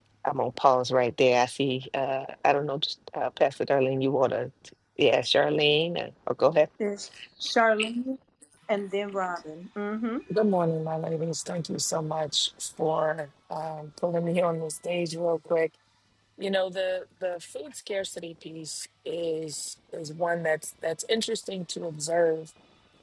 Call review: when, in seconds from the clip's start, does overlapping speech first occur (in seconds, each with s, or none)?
none